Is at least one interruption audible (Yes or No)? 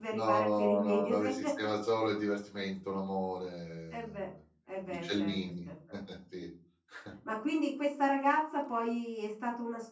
Yes